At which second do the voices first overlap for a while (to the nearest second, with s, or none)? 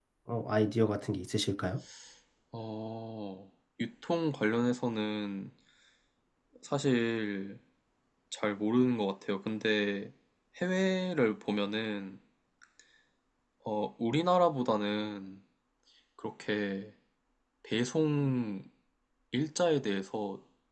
none